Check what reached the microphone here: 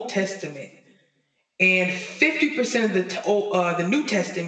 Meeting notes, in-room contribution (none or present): none